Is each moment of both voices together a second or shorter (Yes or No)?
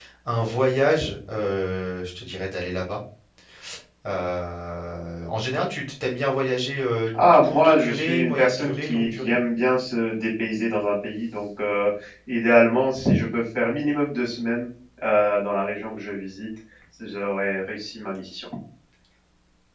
No